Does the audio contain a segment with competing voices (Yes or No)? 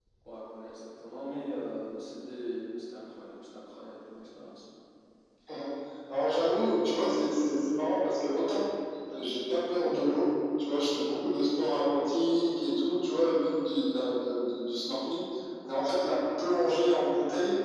No